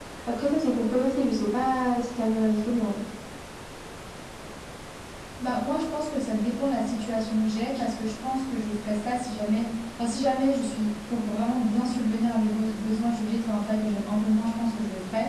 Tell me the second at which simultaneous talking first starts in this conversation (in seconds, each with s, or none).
none